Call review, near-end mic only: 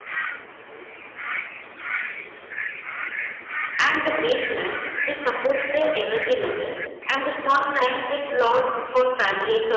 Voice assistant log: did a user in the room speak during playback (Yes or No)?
Yes